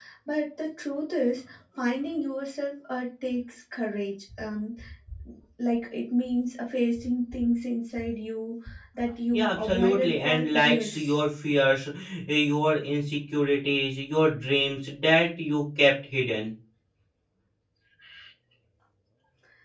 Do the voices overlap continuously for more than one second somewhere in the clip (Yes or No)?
Yes